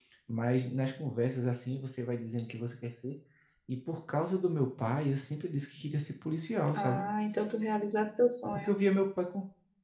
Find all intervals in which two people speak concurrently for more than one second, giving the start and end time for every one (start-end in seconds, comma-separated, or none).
none